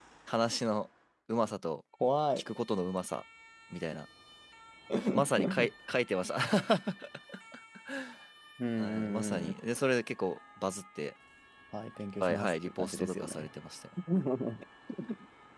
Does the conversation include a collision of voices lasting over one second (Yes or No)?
Yes